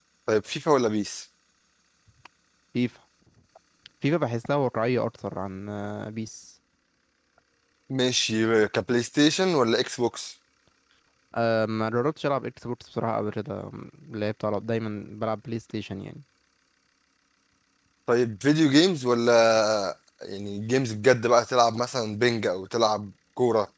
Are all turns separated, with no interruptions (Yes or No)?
Yes